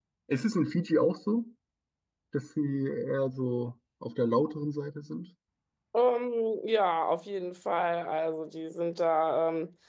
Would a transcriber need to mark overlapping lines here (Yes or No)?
No